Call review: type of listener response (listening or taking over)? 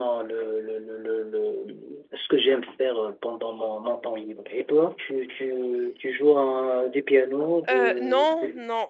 taking over